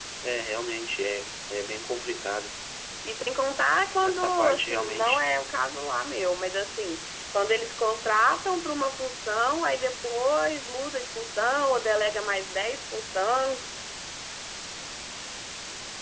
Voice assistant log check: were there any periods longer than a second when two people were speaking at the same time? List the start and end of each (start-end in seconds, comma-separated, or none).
4.0-5.2